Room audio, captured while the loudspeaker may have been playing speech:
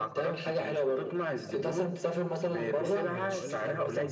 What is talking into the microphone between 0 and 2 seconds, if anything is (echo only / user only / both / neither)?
echo only